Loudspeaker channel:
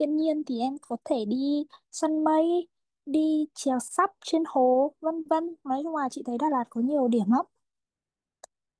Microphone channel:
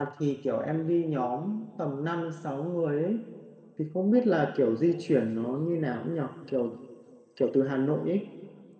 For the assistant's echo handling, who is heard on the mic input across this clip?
user only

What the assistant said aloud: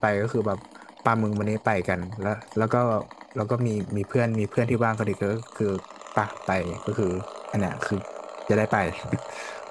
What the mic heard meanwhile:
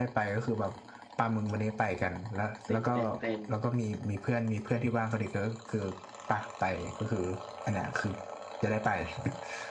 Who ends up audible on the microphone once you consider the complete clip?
both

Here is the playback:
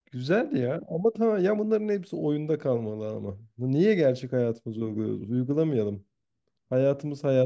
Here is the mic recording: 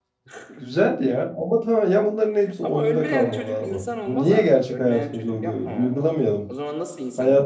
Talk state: both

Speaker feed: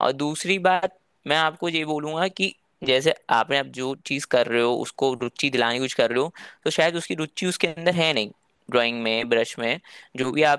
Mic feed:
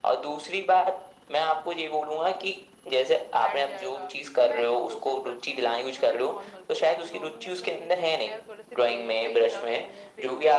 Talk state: both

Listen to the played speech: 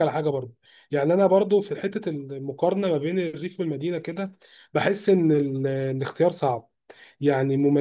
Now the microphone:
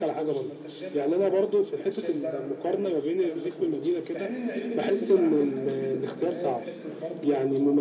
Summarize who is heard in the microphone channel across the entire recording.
both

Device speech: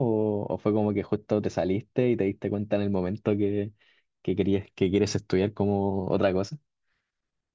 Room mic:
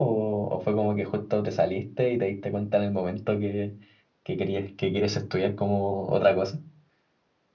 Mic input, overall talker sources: echo only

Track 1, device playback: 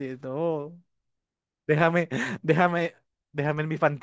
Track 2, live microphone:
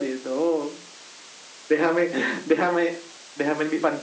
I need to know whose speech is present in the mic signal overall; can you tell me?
echo only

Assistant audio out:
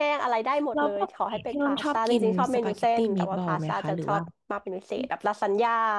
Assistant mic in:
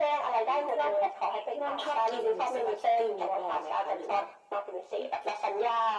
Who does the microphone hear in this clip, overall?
both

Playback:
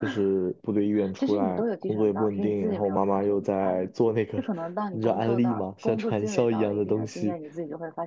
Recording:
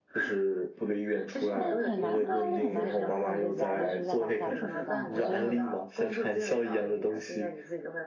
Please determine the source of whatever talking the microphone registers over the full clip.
both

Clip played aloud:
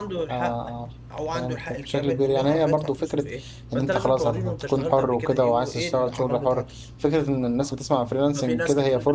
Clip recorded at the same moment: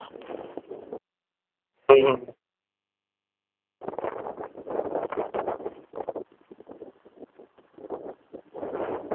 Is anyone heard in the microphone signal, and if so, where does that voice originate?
user only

